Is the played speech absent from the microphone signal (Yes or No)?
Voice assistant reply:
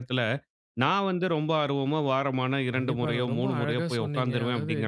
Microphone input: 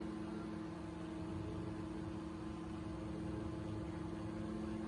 Yes